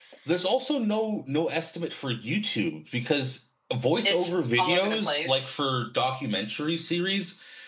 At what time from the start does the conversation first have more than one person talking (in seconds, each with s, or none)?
4.0 s